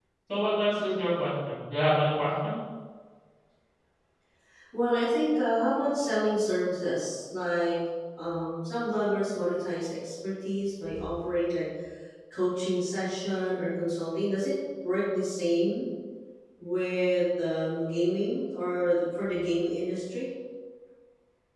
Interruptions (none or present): none